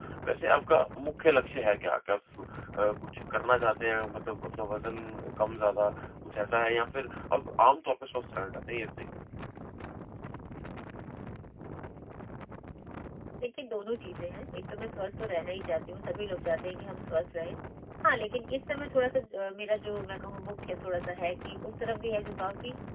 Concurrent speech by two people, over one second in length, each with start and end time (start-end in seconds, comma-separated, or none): none